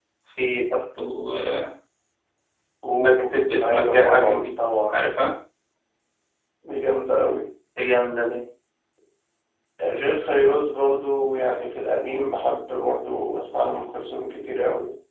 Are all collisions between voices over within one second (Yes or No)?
No